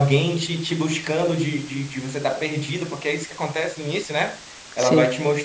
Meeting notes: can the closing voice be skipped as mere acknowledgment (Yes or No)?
Yes